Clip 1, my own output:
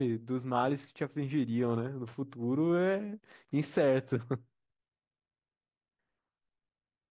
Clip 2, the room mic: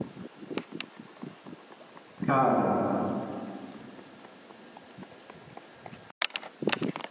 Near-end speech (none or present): present